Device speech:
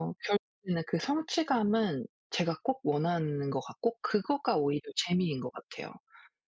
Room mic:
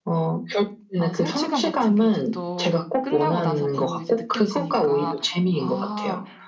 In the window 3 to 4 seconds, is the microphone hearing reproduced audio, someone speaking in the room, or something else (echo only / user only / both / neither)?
both